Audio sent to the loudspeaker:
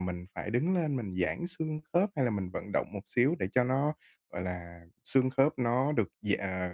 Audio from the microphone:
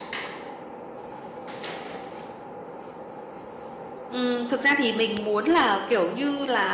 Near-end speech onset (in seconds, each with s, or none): 4.1 s